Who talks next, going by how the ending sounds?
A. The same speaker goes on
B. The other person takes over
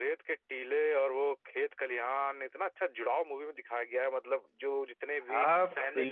B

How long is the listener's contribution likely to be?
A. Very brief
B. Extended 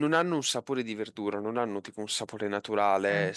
A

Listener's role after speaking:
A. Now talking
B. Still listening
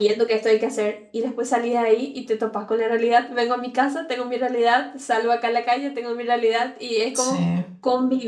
B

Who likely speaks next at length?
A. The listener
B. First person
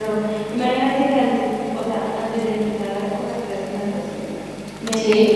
B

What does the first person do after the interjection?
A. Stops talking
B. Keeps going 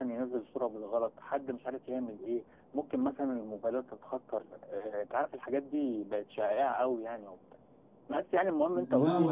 A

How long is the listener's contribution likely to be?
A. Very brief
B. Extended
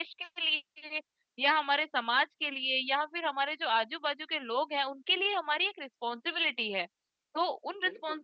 A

